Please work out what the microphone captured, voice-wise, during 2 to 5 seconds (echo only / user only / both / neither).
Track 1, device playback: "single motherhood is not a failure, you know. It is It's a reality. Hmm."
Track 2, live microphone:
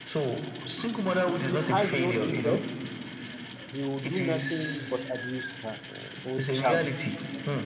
both